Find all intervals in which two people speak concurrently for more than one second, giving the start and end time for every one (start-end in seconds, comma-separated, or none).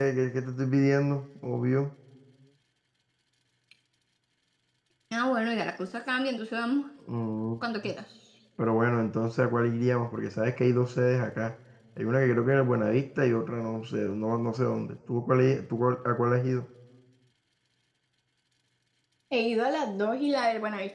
none